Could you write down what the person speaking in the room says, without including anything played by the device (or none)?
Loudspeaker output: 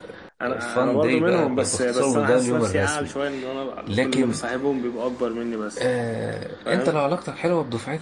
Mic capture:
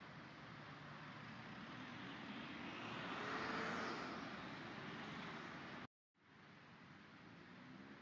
none